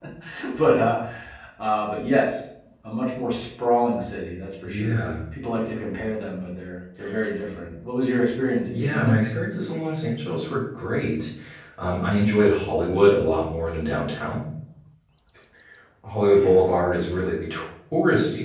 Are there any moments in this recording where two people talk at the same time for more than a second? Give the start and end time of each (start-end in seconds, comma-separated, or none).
none